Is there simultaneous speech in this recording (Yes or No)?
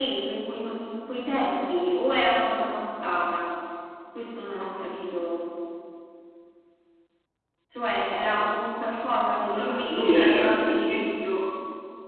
Yes